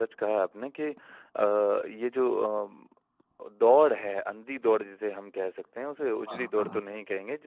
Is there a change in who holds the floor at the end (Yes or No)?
No